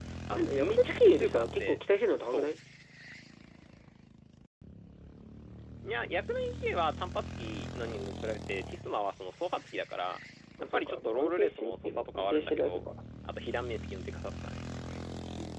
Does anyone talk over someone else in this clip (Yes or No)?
Yes